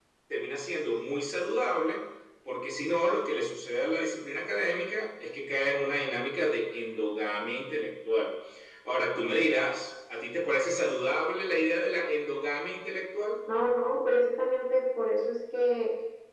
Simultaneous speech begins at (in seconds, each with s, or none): none